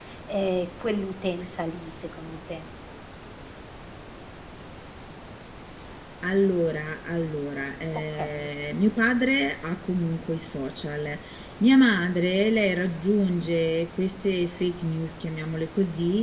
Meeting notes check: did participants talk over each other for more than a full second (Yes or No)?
No